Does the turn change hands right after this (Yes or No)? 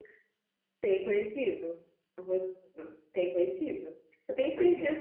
No